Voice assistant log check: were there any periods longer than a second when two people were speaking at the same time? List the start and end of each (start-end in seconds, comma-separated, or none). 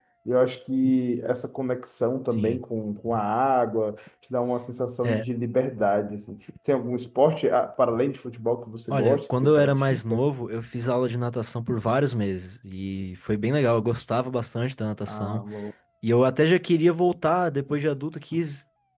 8.9-10.2